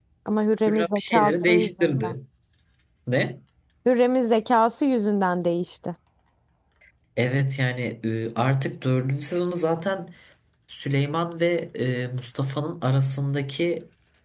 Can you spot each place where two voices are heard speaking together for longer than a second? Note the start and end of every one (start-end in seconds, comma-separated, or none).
0.7-2.1